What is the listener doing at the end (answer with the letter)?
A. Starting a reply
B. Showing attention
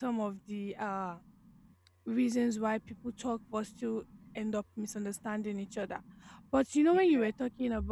B